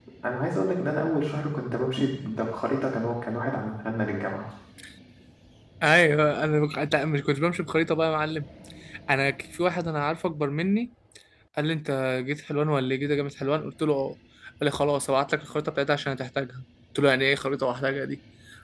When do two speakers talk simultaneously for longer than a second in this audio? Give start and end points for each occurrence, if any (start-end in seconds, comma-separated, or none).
none